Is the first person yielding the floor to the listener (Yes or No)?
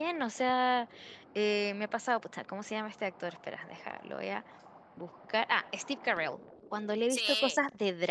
No